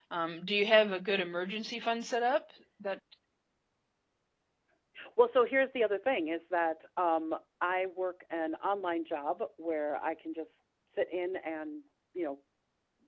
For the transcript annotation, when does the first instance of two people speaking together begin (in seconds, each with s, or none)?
none